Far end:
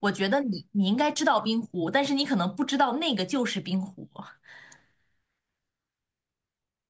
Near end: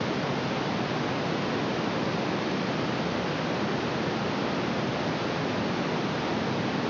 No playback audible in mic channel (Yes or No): Yes